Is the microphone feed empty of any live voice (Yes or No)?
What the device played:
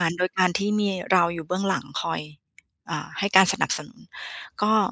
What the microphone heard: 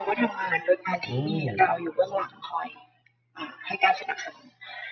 No